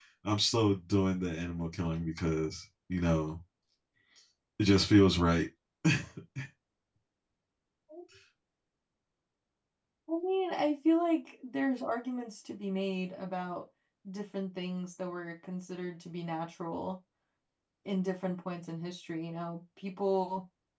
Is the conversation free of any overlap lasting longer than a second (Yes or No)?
Yes